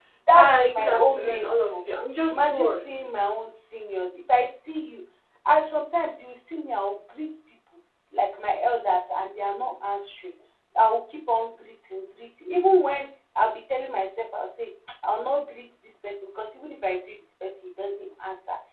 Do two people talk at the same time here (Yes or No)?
Yes